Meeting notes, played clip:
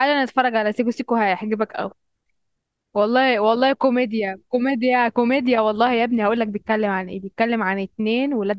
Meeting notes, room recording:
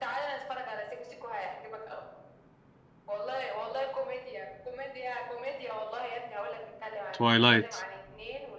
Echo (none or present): present